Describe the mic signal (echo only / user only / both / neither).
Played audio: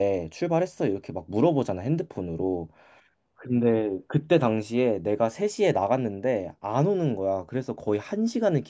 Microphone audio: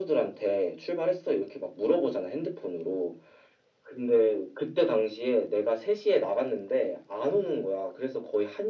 echo only